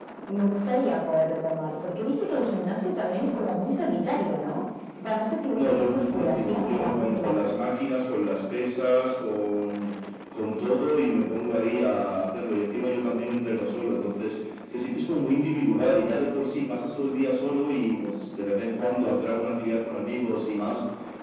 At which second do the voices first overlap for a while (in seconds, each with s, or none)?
5.5 s